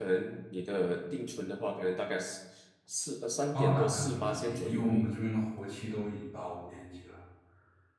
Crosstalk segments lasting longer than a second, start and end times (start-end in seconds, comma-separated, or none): 3.5-5.1